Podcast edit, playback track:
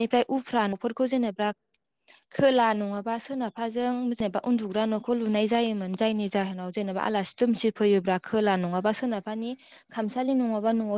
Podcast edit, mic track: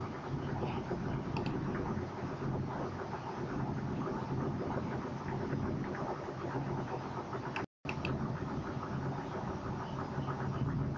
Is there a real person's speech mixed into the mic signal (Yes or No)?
No